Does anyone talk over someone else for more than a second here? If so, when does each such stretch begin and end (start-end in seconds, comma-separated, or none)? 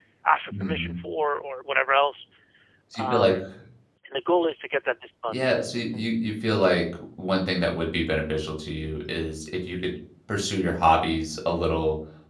none